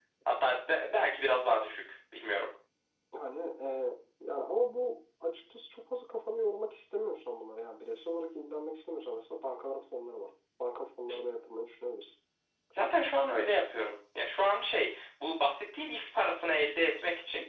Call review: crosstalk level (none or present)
none